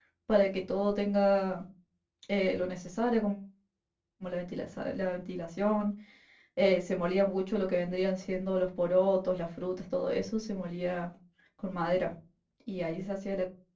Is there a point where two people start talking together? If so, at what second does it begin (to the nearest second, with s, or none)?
none